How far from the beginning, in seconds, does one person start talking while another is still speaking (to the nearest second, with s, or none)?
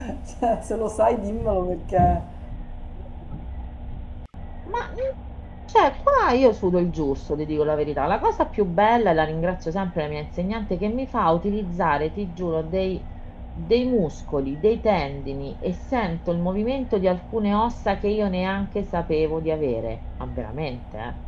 none